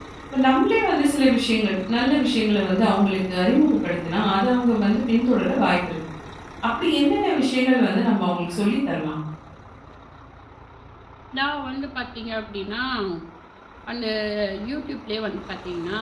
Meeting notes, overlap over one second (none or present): none